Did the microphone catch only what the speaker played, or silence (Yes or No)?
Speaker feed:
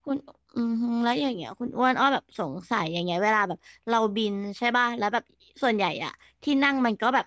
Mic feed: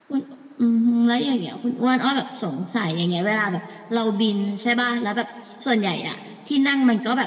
Yes